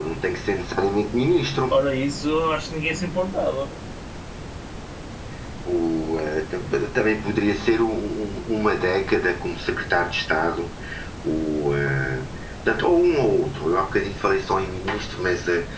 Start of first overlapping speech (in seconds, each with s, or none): none